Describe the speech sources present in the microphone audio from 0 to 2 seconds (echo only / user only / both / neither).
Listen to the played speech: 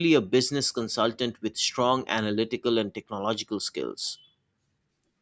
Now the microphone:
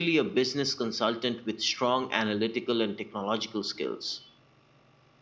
echo only